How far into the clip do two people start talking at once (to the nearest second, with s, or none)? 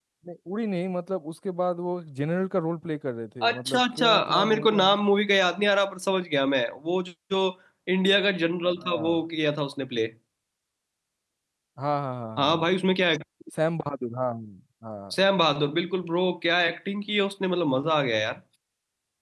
3 s